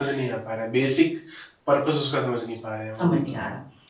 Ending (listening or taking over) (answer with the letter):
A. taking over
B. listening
A